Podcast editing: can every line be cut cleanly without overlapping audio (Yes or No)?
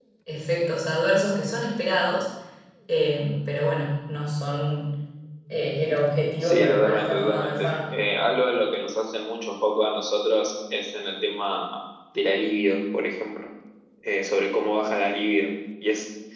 No